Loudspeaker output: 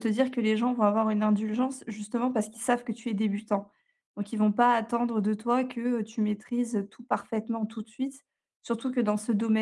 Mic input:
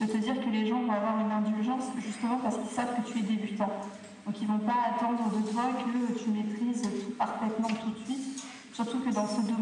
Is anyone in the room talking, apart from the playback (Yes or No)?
No